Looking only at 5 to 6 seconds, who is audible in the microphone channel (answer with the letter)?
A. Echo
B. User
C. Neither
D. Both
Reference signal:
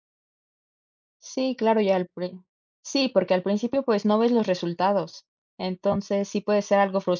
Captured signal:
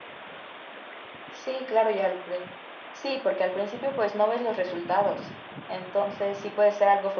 A